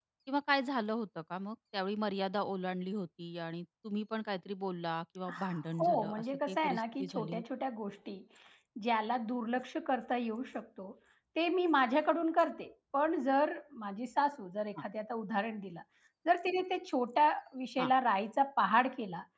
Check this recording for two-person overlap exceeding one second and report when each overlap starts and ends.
5.8-7.4

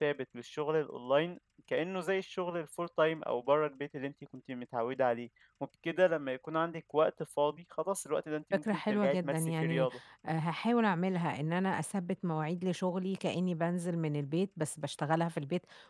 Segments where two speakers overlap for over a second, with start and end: 8.5-9.9

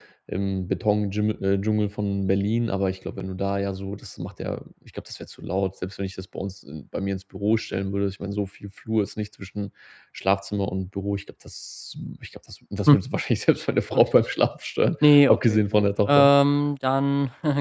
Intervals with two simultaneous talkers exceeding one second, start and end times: 15.0-16.3

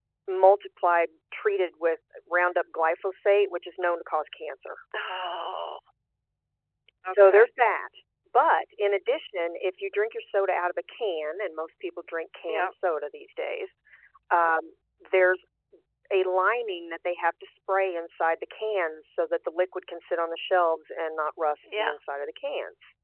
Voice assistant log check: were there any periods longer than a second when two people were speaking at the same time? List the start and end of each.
none

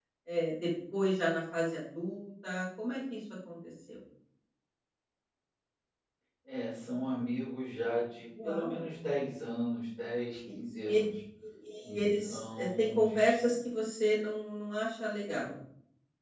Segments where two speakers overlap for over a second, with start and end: 11.8-13.6

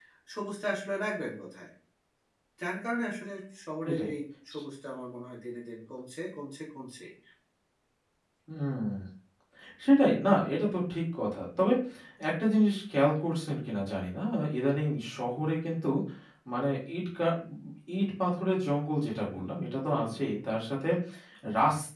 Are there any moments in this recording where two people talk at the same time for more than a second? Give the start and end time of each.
none

